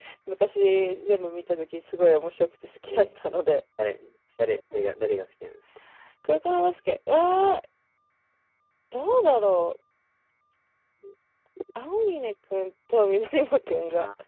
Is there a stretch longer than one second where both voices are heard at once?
No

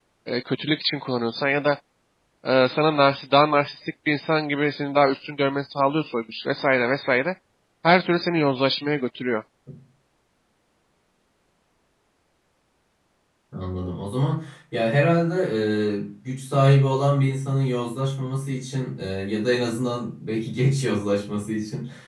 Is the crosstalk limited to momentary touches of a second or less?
Yes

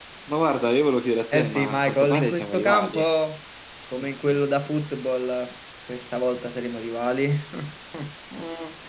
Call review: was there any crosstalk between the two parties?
Yes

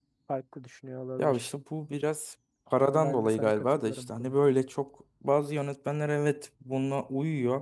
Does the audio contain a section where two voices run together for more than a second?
Yes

